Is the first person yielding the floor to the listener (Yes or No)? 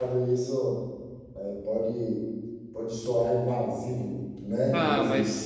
Yes